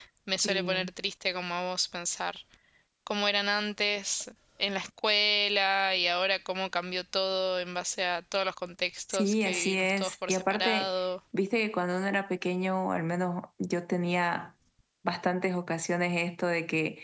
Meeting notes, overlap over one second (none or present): present